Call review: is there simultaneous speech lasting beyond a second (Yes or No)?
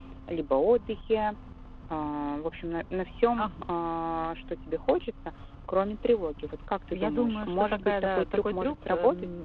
Yes